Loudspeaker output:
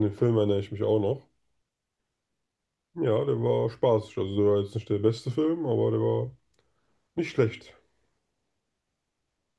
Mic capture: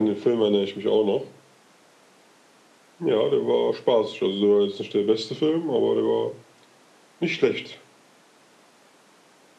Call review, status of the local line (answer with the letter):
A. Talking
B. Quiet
B